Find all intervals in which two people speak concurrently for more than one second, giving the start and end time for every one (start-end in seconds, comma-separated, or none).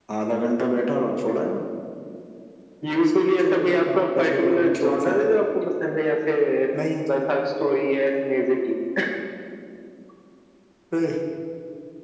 2.9-5.4